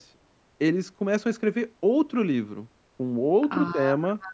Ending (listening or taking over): listening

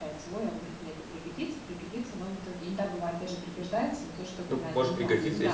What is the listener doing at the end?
taking over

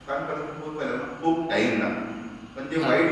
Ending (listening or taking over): listening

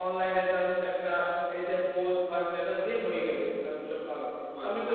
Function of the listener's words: listening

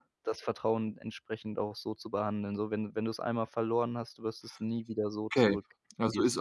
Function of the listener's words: taking over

